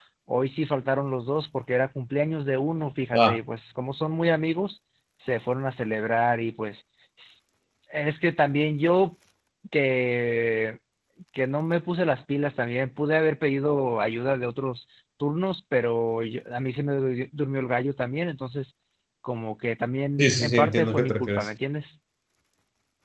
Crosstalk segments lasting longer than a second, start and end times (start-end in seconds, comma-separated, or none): 20.2-21.5